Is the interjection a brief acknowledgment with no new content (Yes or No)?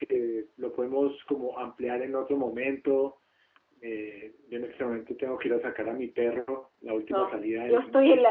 No